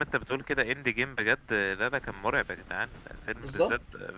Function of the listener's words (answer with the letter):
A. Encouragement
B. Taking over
A